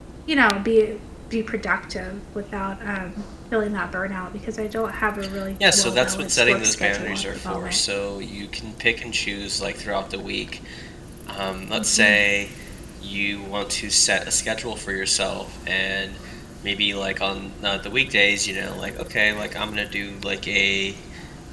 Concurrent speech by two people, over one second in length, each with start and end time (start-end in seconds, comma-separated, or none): 5.7-7.8